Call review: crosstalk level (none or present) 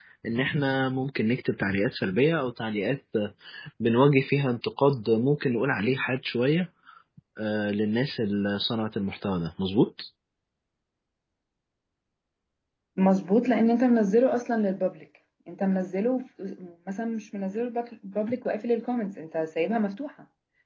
none